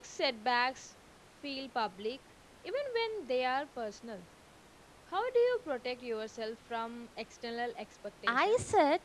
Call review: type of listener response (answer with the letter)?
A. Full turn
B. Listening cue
A